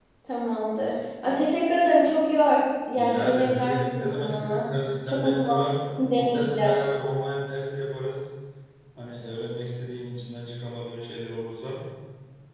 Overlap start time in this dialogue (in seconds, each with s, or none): 3.0 s